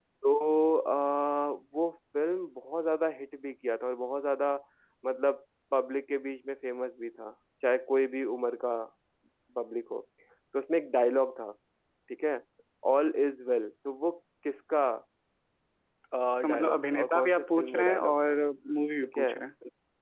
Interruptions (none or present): present